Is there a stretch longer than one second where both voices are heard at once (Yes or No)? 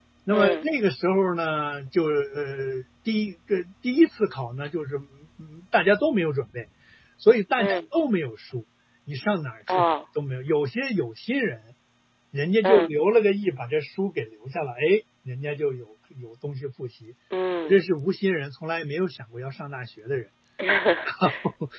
No